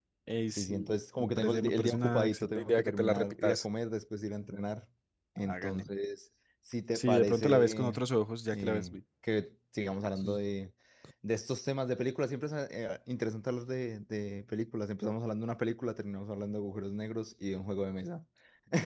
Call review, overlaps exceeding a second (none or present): present